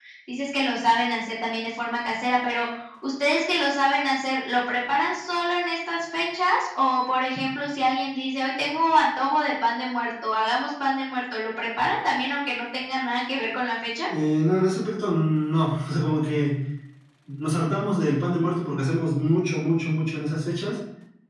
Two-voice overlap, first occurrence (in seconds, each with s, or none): none